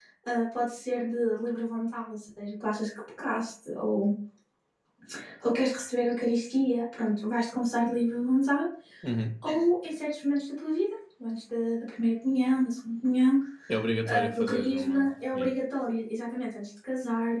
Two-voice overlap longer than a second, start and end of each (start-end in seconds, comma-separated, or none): 14.0-15.5